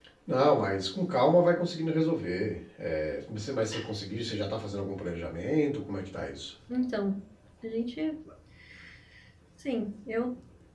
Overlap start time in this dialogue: none

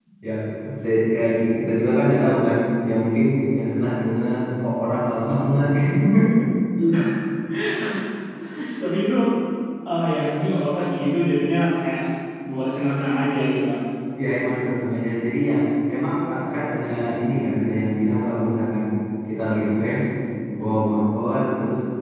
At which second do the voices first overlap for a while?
none

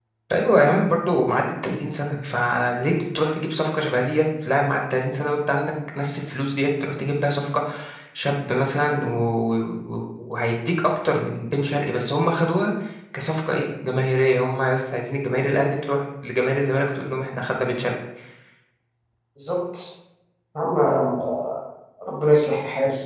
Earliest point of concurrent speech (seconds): none

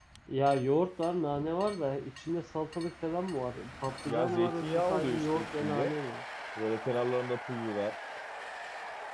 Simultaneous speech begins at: 4.1 s

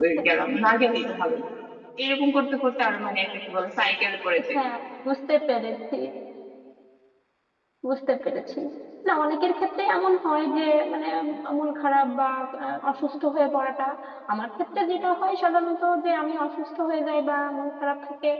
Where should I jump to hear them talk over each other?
none

